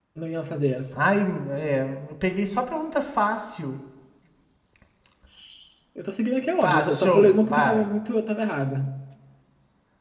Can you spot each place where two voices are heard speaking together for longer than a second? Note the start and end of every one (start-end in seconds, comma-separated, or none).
6.6-7.9